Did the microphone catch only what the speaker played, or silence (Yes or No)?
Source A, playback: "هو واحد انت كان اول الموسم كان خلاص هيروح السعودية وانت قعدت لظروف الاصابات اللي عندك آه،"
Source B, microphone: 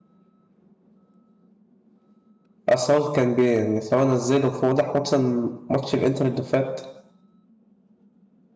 No